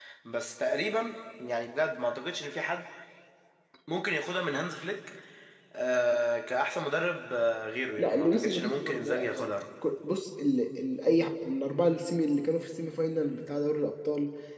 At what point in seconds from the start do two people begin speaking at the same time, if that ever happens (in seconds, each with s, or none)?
8.0 s